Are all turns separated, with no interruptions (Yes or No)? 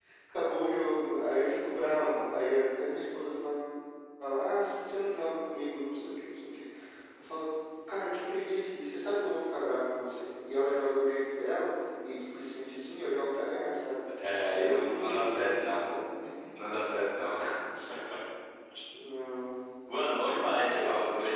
No